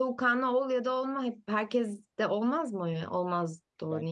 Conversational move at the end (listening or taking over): taking over